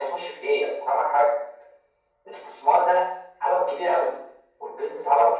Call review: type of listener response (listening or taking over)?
listening